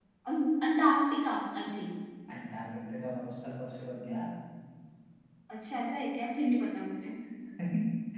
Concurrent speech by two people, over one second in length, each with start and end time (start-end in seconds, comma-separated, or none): none